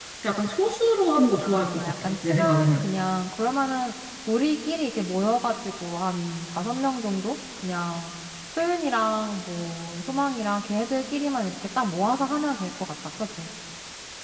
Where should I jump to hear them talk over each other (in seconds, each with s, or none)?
1.4 s